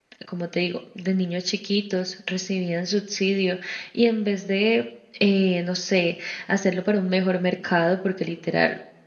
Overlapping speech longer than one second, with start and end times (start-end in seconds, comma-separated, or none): none